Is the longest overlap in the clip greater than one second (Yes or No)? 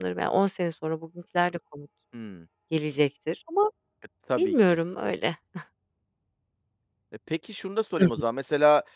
No